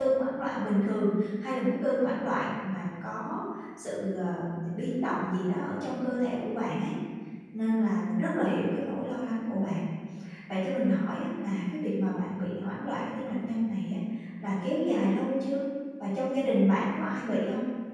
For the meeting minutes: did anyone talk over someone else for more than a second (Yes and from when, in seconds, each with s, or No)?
No